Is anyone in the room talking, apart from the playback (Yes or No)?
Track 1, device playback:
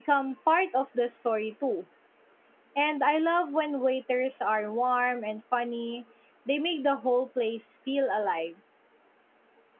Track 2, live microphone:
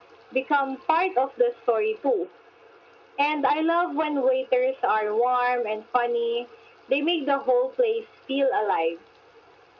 No